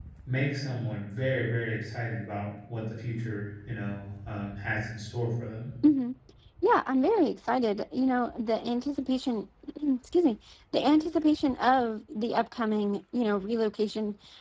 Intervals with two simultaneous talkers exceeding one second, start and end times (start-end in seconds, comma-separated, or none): none